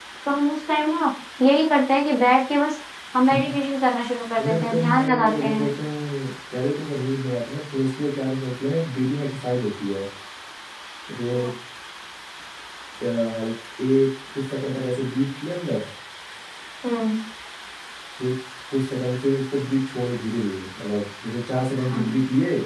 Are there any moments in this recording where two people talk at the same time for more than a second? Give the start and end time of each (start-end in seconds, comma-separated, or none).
4.4-5.8